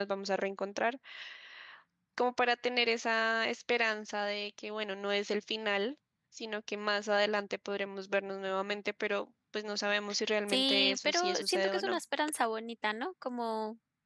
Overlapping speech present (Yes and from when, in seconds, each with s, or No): Yes, from 10.5 s